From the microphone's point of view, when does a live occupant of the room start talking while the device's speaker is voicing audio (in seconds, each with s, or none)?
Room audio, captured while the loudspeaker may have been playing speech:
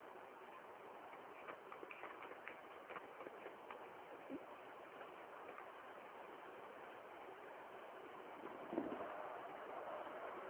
none